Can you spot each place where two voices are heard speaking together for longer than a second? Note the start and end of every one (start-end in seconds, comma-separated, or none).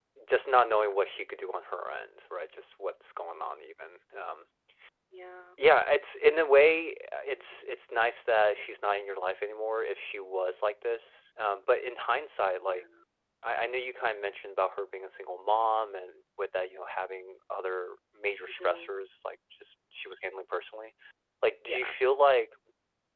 none